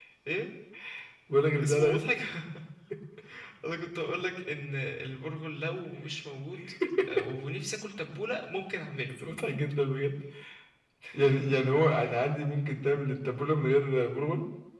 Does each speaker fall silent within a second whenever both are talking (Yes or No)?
Yes